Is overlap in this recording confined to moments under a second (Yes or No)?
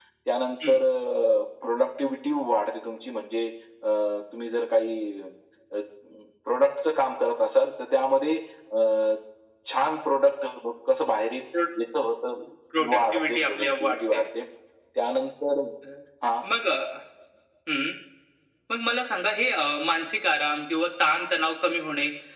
No